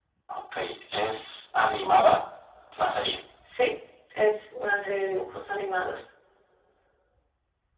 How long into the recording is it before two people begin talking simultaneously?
none

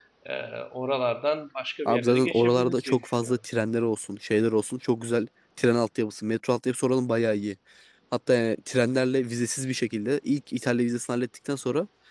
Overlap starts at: 2 s

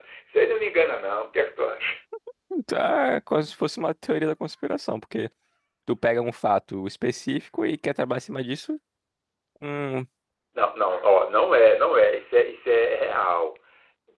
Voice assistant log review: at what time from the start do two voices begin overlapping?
none

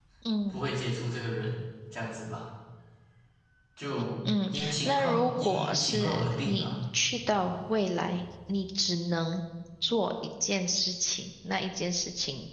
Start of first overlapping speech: 4 s

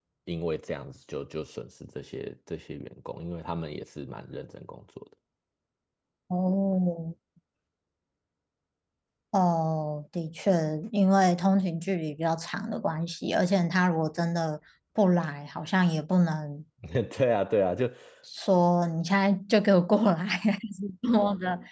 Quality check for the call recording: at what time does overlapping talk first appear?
none

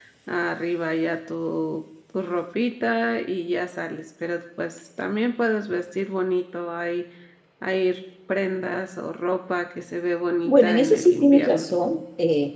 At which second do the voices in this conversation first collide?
10 s

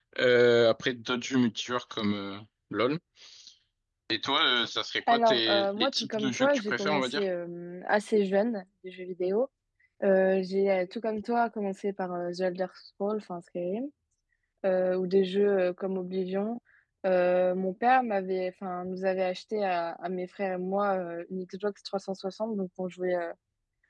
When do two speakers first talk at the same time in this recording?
5 s

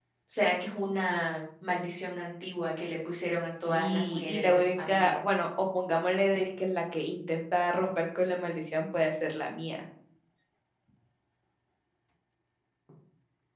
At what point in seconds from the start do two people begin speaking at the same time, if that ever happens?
4 s

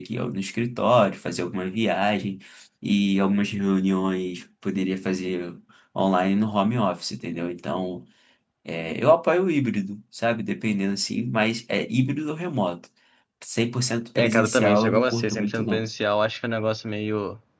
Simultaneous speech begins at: 14 s

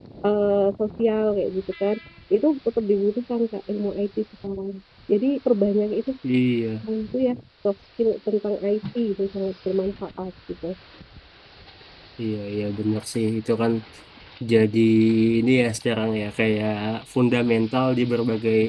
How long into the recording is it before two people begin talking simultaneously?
none

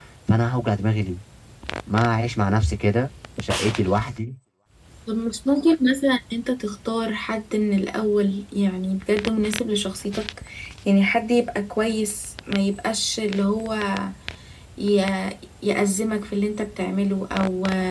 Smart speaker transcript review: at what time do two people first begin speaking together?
none

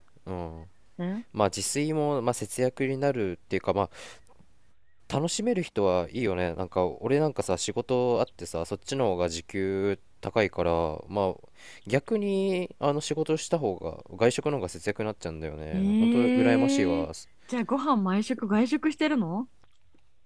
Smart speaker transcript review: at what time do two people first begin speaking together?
16 s

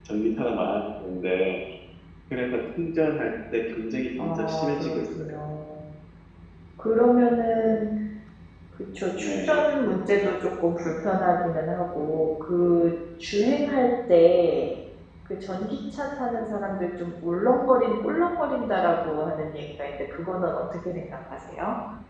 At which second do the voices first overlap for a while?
4 s

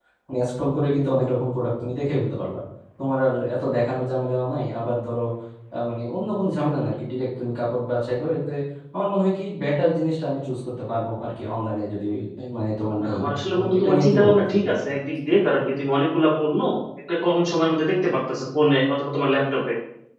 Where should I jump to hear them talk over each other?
13 s

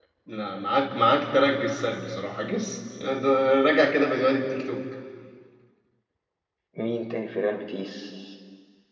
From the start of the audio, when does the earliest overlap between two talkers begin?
none

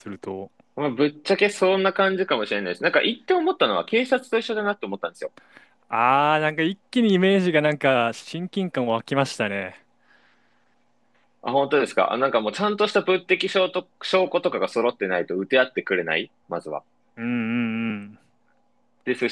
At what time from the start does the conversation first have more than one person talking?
none

